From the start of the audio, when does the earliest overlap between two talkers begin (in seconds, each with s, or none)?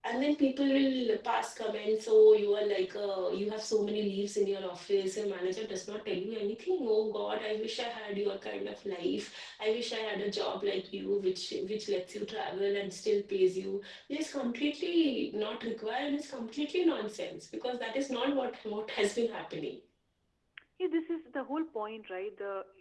none